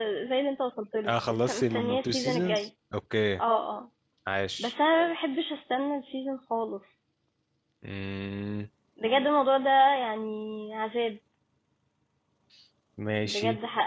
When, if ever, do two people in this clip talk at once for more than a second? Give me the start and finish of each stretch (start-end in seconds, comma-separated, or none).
1.1-2.7